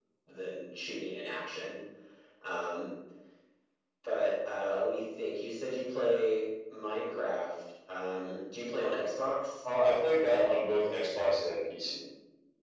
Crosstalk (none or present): none